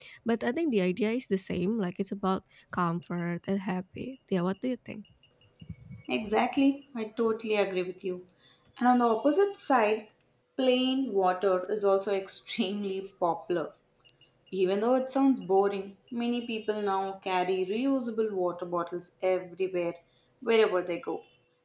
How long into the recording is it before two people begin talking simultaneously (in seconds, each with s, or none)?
none